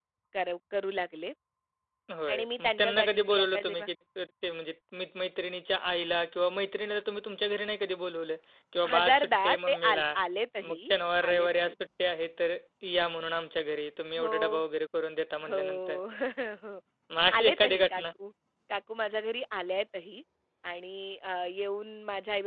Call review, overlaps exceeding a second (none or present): present